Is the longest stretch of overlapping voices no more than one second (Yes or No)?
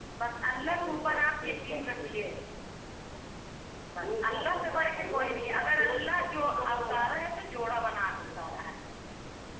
No